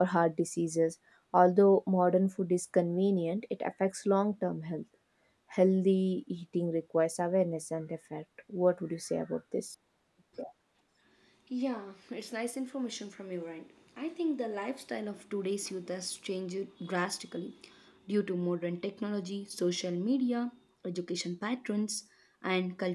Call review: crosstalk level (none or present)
none